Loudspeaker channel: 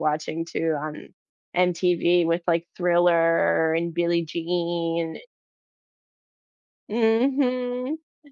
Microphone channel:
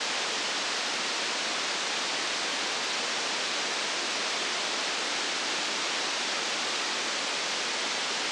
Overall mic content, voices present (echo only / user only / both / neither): neither